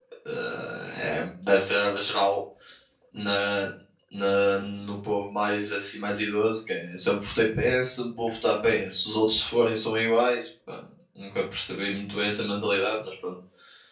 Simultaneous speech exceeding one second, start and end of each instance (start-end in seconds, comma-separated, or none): none